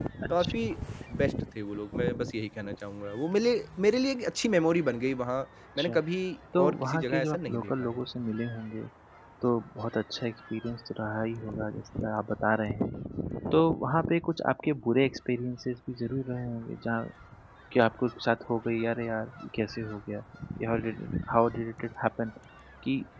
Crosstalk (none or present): present